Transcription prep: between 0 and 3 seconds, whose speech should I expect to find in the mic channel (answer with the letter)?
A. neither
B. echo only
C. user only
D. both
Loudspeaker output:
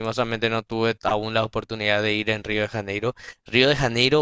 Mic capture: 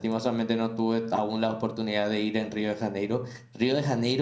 B